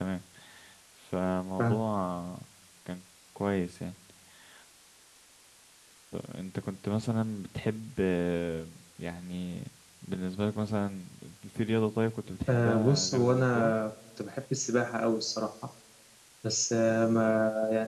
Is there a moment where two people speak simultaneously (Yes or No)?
Yes